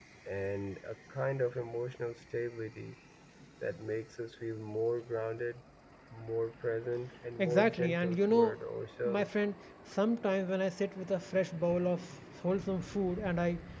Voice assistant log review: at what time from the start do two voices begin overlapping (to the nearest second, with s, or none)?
7 s